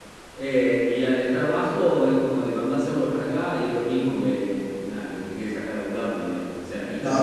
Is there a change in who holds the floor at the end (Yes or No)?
Yes